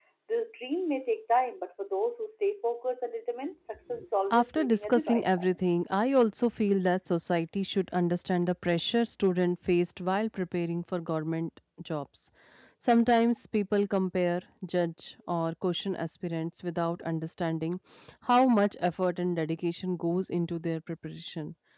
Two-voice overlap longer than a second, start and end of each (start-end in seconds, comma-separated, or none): 4.3-5.6